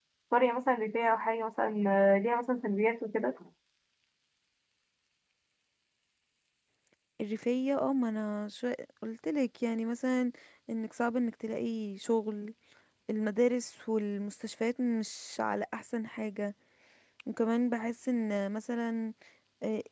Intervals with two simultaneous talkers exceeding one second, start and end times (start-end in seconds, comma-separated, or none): none